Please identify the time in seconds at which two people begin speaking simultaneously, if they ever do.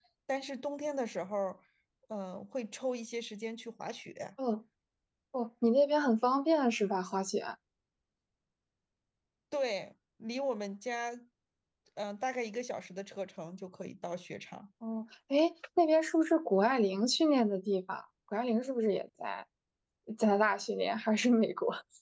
none

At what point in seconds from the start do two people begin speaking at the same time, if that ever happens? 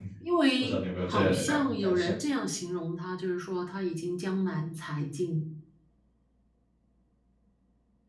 0.6 s

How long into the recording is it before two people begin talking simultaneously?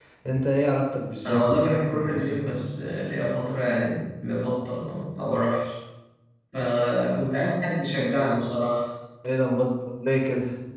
1.3 s

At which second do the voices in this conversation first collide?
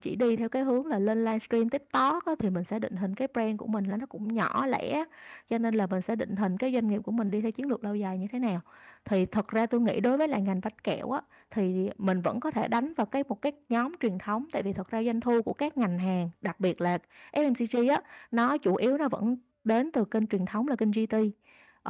none

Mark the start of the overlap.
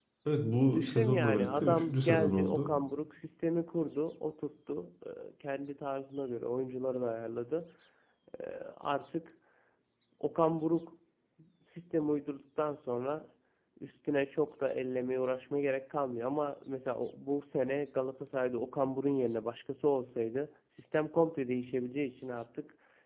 0.7 s

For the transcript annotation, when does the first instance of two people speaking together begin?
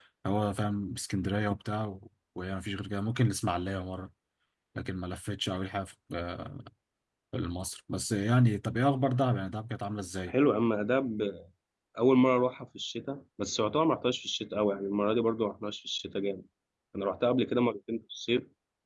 none

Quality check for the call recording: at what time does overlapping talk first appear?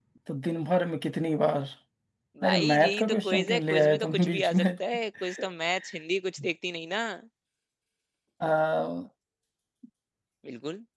2.5 s

